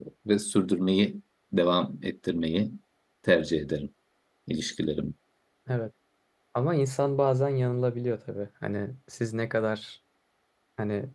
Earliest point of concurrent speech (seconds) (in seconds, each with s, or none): none